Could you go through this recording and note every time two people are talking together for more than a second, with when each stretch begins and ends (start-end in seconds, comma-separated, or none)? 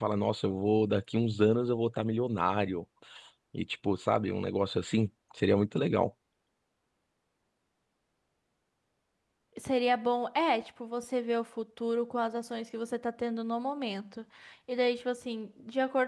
none